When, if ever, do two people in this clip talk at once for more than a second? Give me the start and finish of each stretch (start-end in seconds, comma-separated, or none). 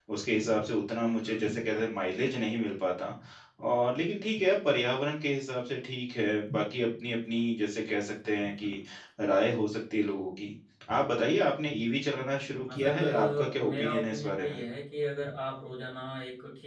12.7-14.6